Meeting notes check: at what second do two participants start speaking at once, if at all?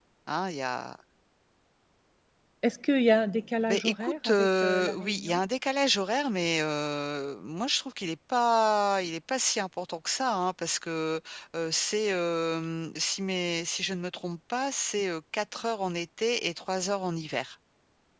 4 s

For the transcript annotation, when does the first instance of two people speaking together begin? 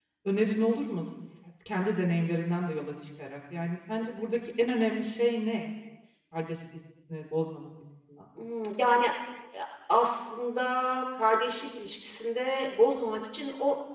none

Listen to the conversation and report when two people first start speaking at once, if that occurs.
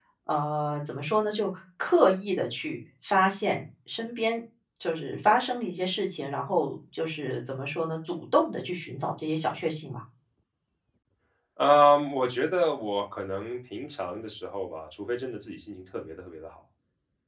none

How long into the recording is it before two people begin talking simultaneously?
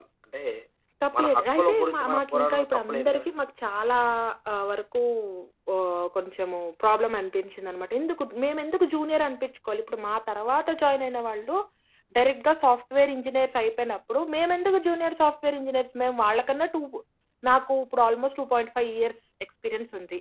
1 s

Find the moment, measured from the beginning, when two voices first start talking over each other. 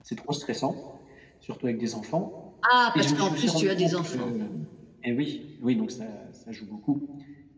3 s

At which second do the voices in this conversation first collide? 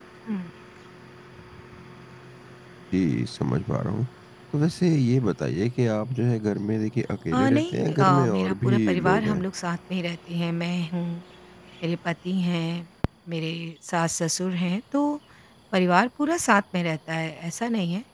7 s

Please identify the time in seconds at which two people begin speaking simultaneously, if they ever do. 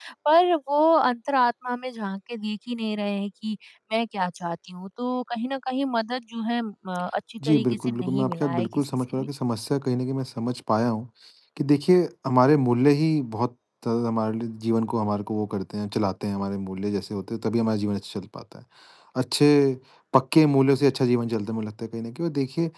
7 s

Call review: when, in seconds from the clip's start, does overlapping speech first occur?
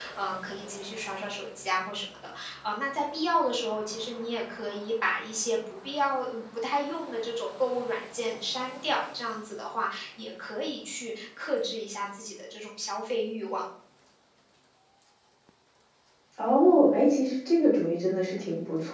none

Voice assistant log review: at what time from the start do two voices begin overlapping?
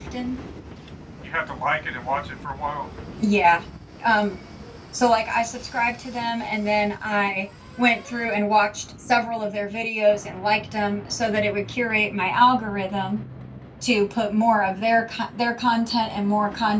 none

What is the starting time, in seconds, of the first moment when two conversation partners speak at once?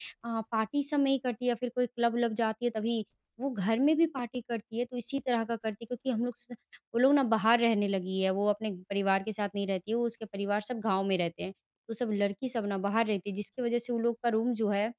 none

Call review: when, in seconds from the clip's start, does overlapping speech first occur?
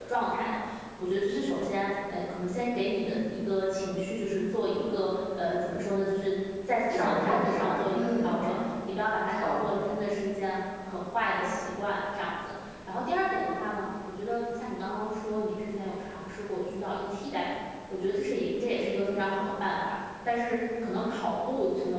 7 s

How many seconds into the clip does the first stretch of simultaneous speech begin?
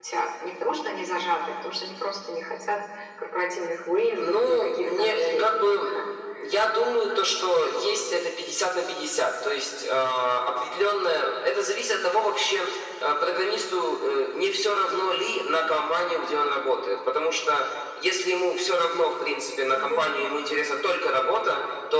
4 s

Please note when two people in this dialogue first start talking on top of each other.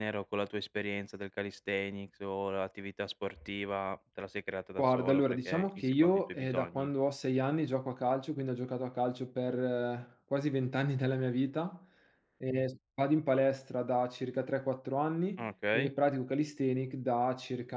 5 s

